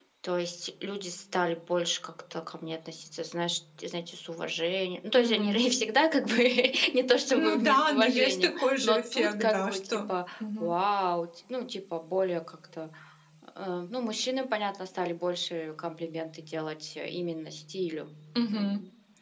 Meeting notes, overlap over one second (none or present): present